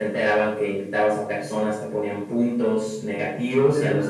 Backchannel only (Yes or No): Yes